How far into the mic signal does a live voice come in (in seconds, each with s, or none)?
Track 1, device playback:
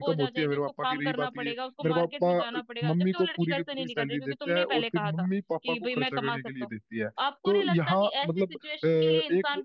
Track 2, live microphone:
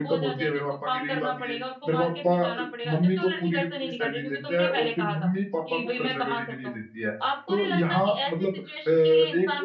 none